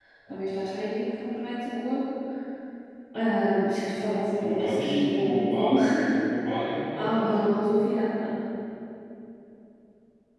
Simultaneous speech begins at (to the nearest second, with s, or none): 4 s